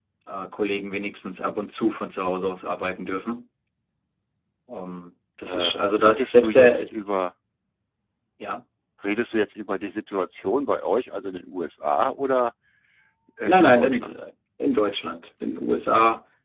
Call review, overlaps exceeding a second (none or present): present